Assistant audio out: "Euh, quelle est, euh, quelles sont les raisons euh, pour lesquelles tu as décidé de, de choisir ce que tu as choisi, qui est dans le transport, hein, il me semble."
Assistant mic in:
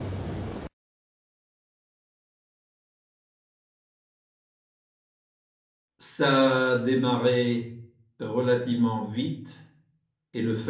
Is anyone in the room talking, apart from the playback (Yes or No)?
Yes